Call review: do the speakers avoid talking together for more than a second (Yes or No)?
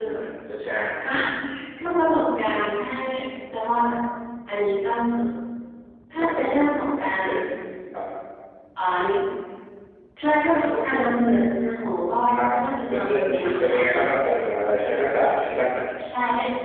No